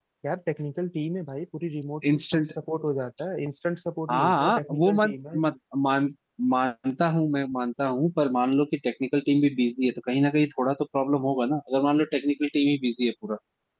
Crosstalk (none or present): present